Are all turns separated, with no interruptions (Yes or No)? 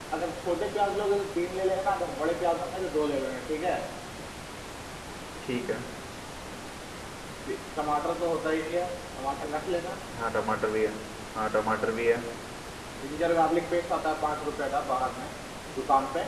Yes